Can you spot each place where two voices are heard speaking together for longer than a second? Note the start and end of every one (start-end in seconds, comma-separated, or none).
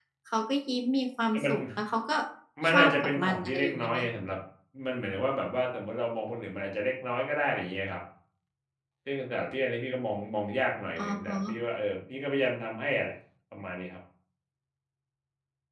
2.7-4.0